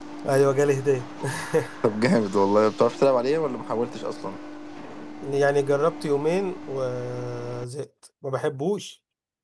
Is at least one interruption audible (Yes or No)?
No